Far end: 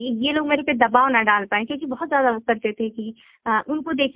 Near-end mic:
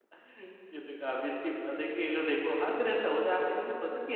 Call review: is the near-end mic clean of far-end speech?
Yes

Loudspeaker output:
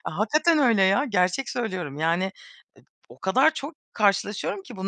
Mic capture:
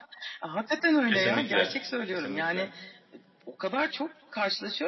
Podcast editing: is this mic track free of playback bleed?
No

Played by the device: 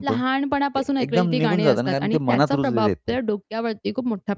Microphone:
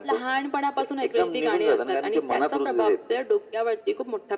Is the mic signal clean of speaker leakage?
No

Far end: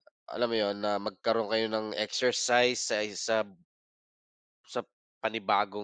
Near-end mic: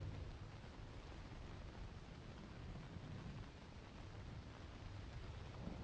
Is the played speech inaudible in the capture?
Yes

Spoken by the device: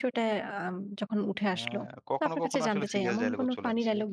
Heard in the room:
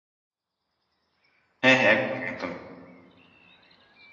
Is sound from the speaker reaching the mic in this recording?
No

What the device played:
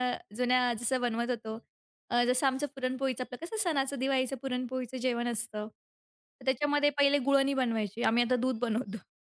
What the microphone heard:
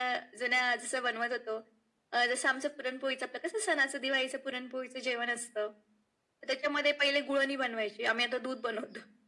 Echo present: Yes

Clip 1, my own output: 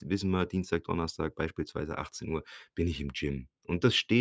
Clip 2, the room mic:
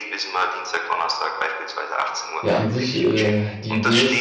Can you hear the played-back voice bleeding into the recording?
Yes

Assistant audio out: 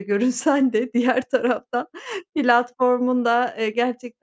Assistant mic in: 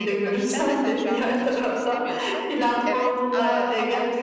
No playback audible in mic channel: No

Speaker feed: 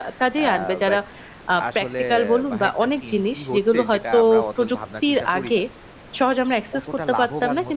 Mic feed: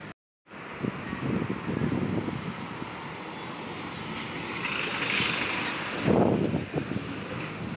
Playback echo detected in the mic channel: No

